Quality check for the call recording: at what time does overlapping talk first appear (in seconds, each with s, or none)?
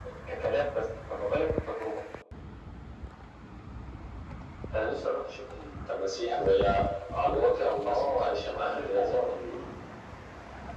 7.8 s